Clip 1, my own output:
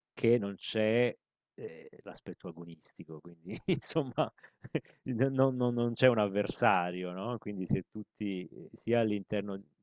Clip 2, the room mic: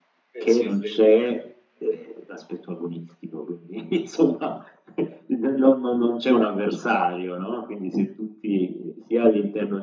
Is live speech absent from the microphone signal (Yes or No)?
No